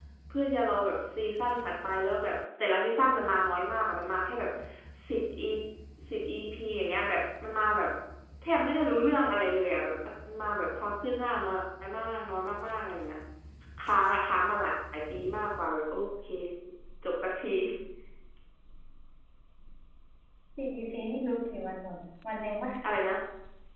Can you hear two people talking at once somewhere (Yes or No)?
No